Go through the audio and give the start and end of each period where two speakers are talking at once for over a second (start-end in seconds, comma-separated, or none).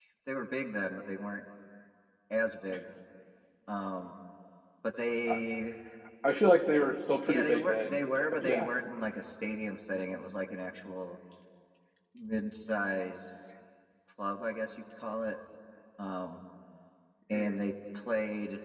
7.3-8.7